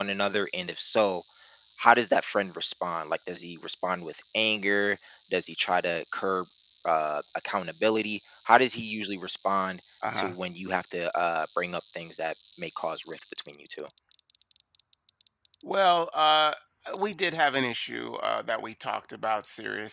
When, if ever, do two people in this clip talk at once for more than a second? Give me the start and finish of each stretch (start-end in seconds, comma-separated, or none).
none